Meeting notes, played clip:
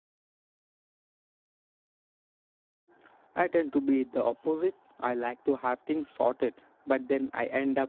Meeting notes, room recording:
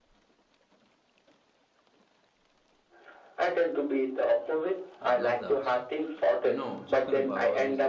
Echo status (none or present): present